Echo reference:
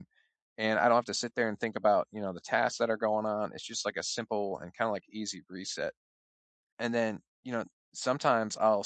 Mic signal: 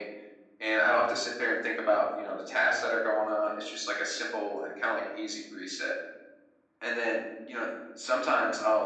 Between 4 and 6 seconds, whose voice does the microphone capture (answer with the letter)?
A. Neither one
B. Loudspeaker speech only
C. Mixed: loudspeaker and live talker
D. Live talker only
B